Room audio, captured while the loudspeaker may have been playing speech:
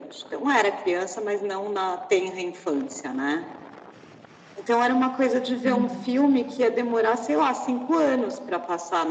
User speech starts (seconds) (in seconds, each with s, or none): 5.6 s